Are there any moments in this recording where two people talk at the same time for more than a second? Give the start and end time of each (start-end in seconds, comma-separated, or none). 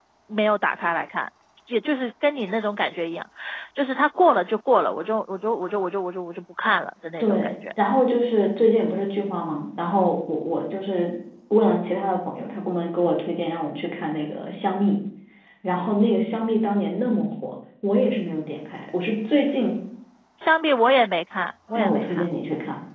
none